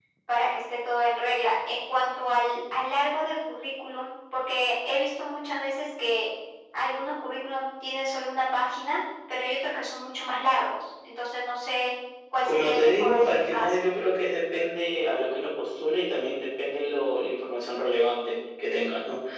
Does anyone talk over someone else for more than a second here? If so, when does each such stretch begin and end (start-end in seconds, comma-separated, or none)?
12.4-13.7